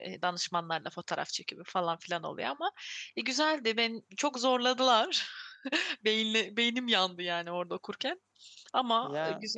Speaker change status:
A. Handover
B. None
A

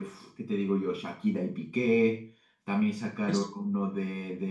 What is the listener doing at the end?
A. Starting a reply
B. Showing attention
B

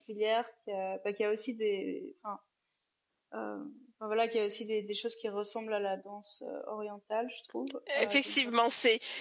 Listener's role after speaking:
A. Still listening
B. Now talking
B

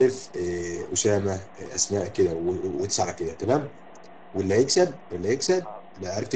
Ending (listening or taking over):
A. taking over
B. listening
B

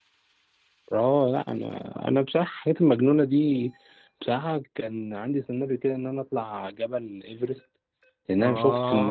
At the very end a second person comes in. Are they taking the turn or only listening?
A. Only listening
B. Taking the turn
A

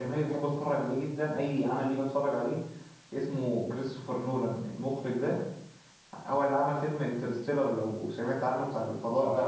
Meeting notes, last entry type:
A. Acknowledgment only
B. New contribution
B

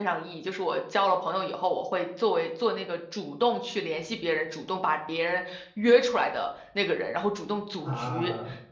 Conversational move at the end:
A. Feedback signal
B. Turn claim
A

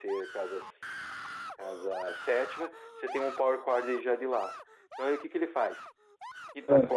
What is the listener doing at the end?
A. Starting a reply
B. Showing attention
B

